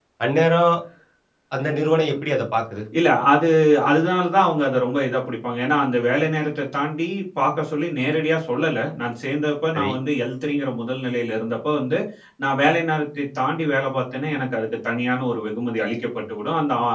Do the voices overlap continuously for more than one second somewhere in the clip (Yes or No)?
No